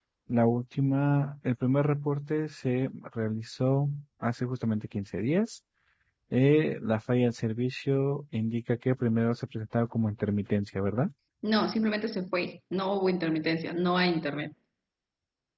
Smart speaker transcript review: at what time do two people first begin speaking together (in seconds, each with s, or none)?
none